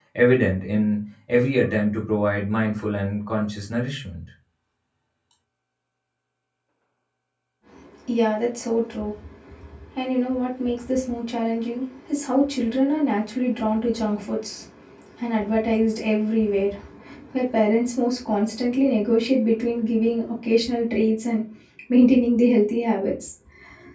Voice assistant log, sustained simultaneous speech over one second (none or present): none